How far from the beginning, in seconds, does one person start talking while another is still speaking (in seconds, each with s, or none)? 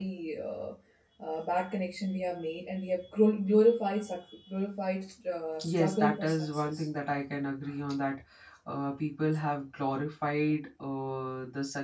5.6 s